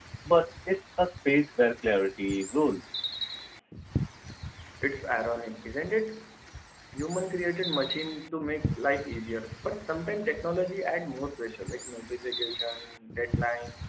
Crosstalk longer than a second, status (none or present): none